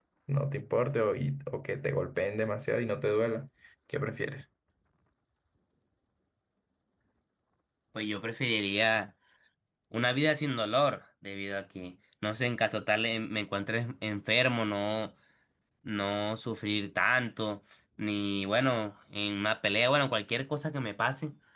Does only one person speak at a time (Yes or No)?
Yes